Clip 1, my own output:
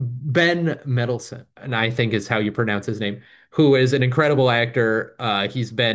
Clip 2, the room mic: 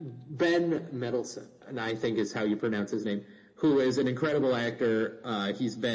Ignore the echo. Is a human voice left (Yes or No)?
No